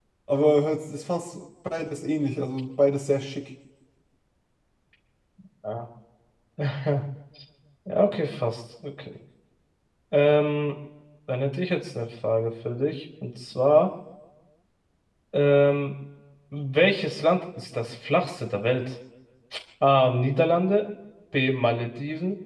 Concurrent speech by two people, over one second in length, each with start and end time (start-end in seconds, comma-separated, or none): none